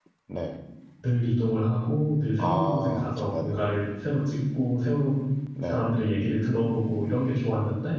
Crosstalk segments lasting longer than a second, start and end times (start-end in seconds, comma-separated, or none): 2.4-3.6